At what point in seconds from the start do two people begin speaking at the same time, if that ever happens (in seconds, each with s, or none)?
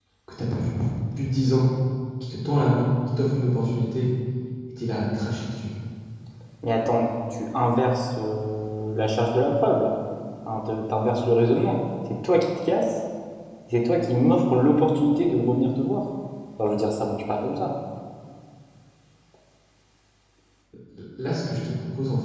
none